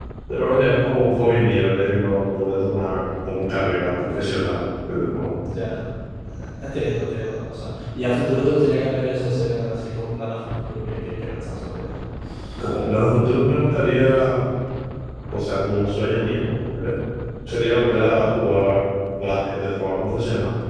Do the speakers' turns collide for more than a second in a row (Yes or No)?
No